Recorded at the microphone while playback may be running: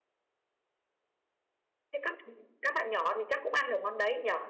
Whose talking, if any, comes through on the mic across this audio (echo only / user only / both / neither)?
user only